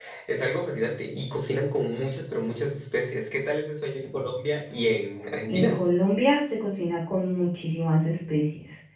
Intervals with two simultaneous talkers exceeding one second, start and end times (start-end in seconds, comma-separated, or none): none